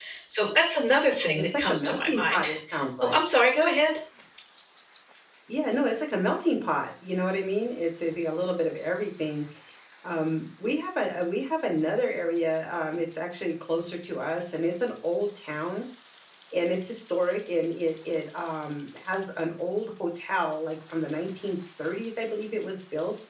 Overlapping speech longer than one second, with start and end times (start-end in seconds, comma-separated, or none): 1.4-2.6